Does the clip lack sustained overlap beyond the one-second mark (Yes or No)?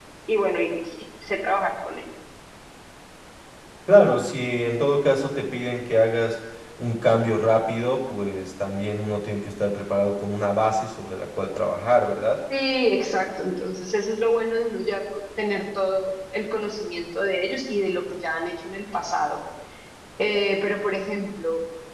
Yes